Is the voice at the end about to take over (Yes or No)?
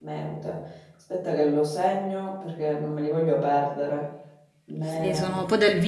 Yes